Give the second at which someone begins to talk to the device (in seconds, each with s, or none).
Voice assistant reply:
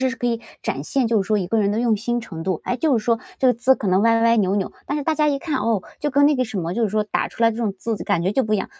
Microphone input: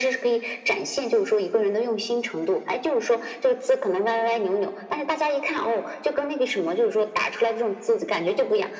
none